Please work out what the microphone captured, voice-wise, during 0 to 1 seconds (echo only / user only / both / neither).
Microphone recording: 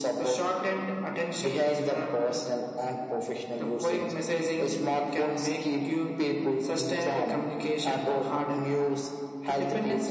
echo only